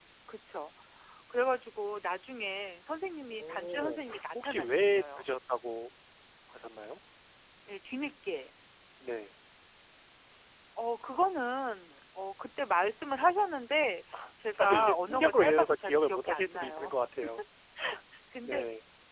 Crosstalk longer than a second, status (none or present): present